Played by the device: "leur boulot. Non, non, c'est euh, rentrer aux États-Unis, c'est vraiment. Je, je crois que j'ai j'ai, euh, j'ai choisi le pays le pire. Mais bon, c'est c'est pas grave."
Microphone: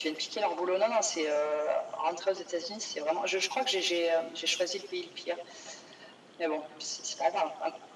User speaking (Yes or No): No